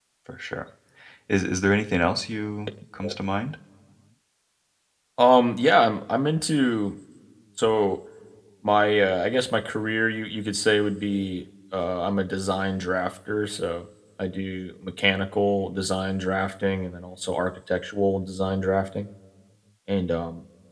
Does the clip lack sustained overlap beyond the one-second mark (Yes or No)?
Yes